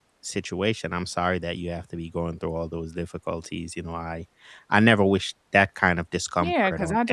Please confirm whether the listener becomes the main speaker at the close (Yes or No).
Yes